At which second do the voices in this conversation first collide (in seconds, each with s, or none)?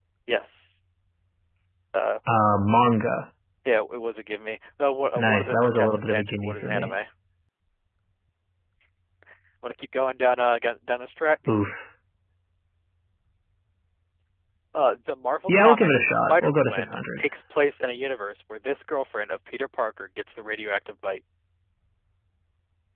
5.2 s